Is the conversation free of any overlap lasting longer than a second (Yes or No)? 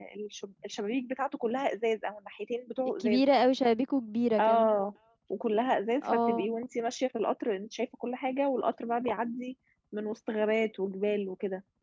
Yes